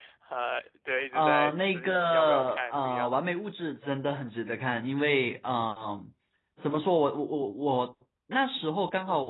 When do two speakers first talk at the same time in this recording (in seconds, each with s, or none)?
1.1 s